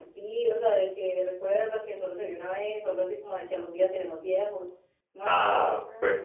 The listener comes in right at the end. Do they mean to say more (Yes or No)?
Yes